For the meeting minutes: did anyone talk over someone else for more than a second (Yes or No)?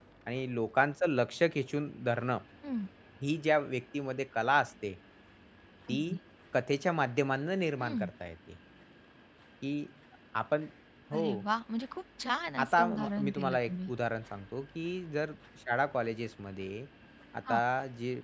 Yes